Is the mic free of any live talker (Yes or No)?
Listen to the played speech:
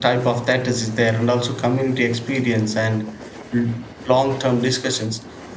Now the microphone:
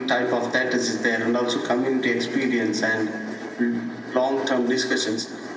Yes